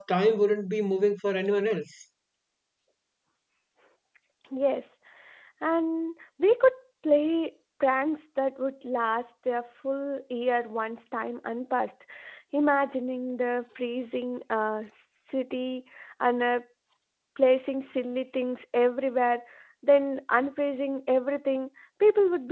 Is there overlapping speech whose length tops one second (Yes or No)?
No